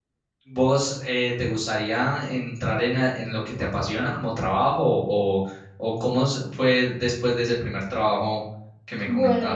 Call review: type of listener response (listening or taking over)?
taking over